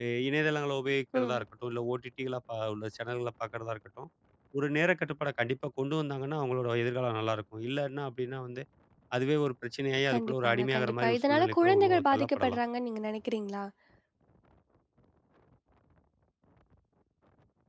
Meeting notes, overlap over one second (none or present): present